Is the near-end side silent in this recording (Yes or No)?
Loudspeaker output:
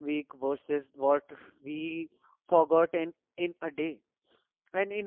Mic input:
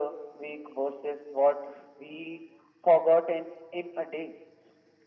Yes